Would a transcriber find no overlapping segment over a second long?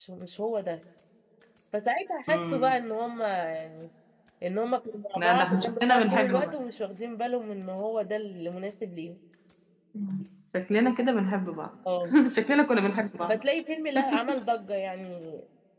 No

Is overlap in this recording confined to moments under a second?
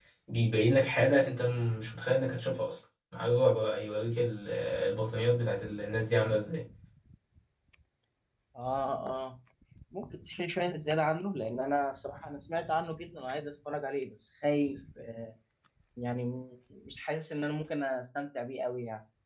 Yes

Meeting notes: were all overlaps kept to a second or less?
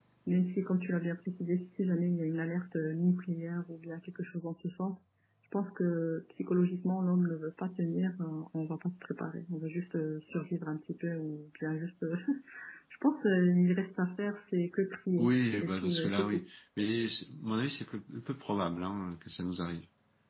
No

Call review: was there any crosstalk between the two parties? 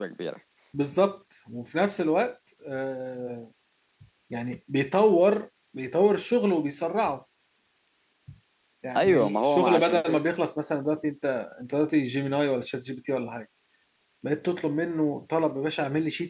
Yes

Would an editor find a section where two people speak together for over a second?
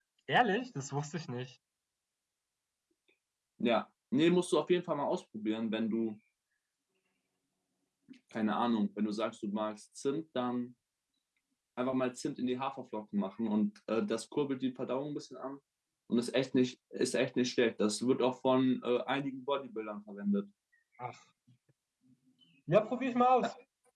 No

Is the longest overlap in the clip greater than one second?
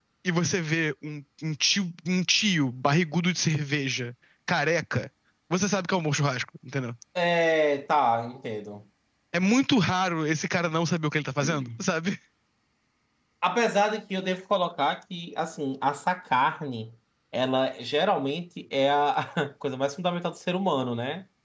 No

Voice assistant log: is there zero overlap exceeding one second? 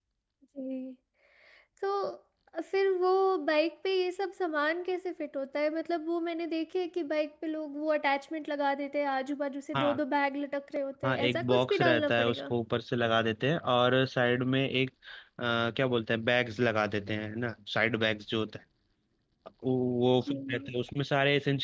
No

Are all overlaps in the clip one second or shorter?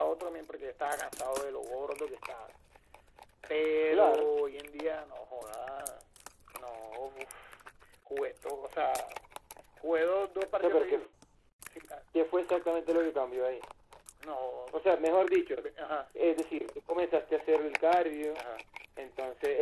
Yes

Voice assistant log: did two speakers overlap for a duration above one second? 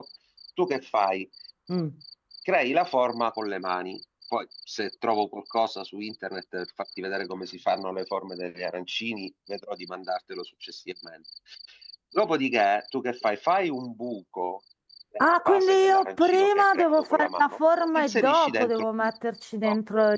Yes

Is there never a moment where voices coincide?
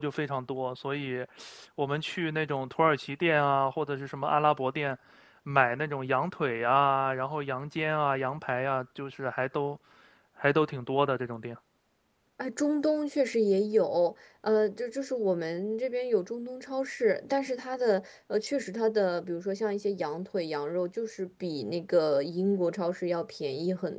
Yes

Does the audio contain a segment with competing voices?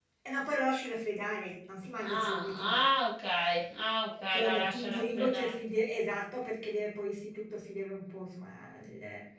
Yes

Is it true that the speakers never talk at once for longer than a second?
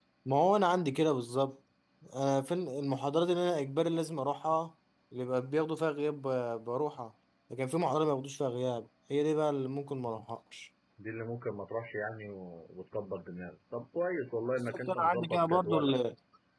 No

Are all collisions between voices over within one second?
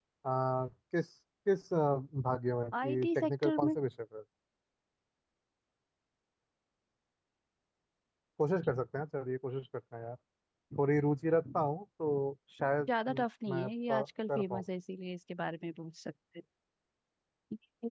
No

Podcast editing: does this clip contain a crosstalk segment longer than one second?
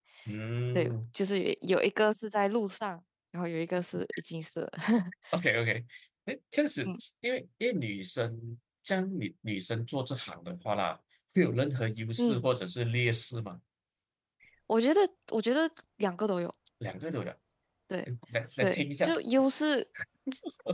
No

